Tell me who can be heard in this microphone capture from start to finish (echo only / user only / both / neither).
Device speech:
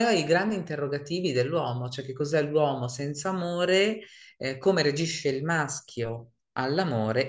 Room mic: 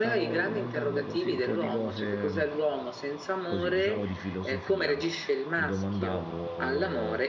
both